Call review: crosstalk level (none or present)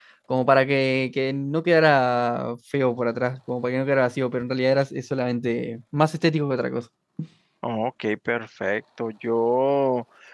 none